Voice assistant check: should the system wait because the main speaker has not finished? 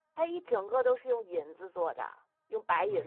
No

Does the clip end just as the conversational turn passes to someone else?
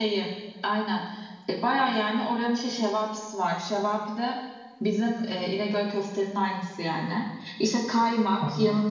No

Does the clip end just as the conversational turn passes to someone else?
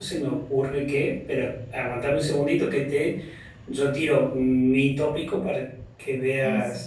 No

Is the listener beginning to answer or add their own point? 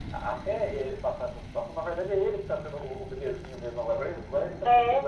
No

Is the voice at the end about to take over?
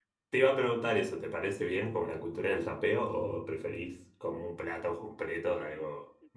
Yes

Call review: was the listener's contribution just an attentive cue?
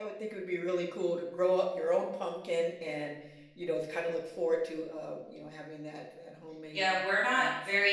No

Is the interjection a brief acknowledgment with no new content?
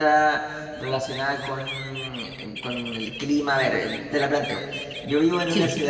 Yes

